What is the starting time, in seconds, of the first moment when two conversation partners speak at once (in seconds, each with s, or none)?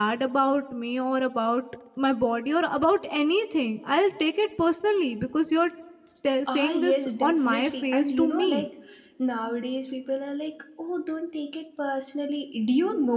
6.5 s